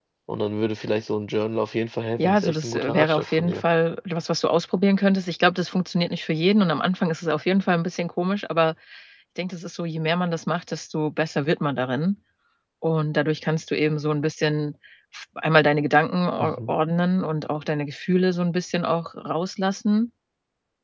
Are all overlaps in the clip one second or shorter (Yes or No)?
No